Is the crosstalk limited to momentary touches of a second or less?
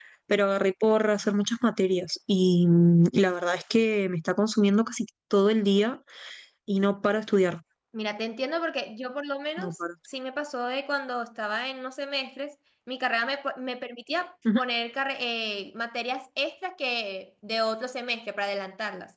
Yes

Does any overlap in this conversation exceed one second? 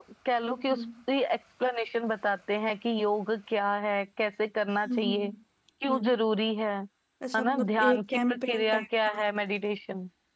Yes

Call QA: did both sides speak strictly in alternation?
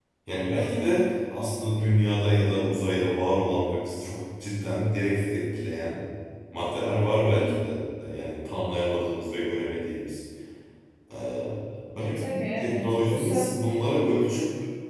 No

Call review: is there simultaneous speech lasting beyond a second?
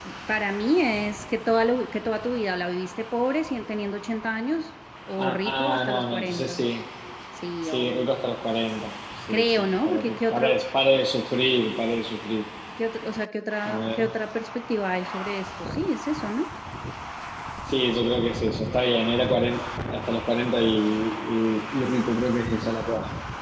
Yes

